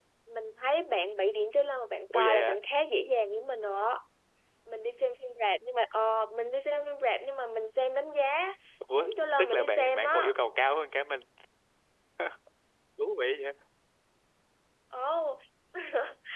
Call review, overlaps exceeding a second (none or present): present